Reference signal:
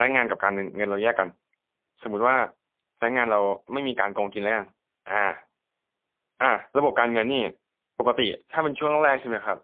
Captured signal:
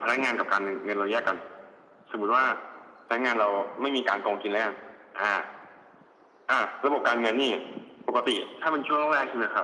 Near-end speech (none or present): none